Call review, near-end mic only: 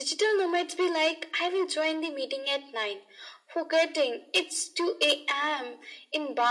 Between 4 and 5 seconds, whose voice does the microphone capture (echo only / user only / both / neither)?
echo only